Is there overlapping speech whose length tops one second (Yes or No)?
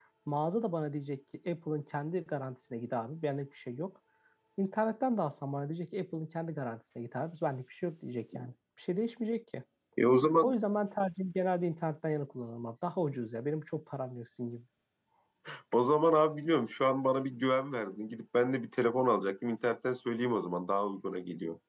No